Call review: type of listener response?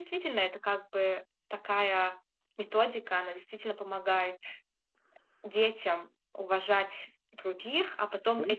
listening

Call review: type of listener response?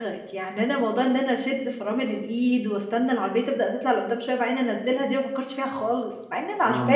taking over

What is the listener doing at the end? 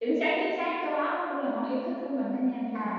taking over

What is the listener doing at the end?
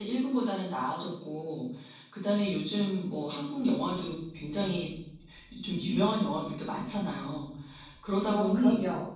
listening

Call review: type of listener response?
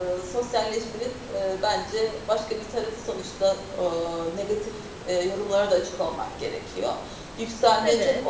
listening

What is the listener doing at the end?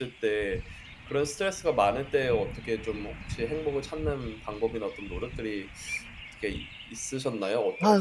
taking over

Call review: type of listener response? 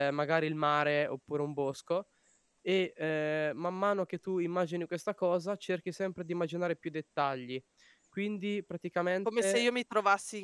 taking over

